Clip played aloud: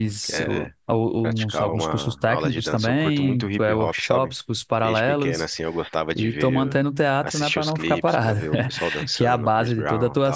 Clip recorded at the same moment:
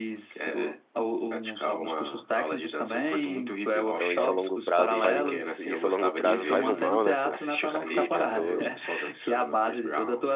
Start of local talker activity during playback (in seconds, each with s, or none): 3.9 s